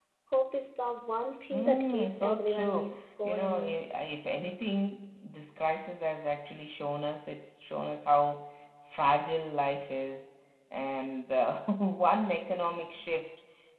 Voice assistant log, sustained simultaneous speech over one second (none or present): present